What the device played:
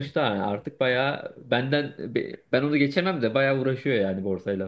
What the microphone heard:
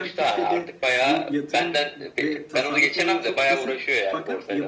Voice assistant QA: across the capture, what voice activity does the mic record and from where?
both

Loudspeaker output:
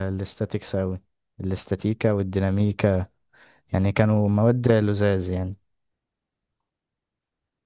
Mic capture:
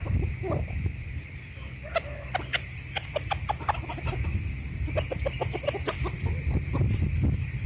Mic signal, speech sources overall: neither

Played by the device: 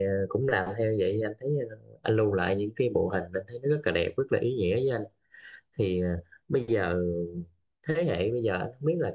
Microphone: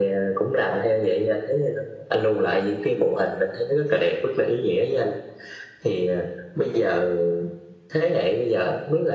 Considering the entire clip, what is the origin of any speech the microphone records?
echo only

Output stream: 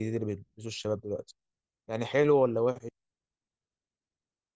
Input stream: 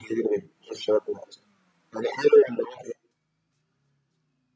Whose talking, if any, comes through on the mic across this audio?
echo only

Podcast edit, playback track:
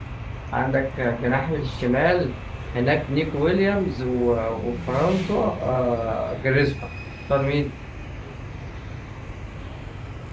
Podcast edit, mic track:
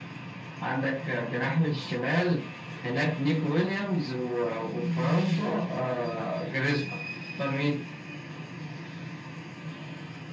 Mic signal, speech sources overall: echo only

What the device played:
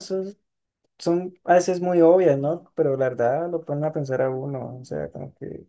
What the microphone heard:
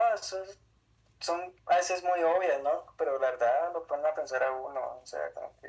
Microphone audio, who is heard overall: echo only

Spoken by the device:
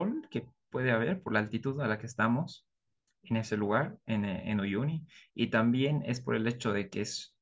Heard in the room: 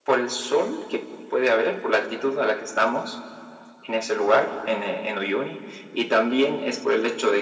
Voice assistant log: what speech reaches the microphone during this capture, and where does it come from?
echo only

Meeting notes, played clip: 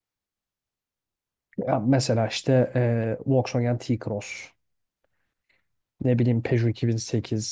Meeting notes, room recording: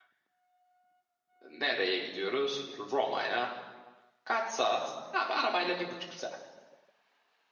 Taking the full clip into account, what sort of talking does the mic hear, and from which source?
user only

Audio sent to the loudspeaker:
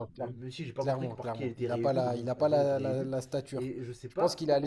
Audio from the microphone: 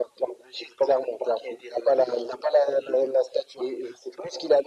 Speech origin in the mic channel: echo only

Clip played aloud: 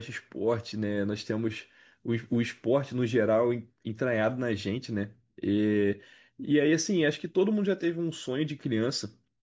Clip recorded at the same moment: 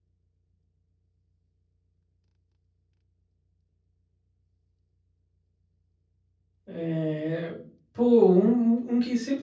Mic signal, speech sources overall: user only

